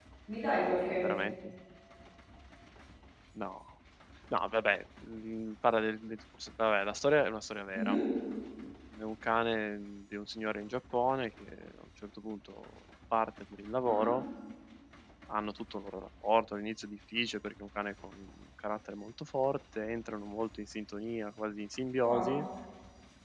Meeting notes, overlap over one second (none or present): none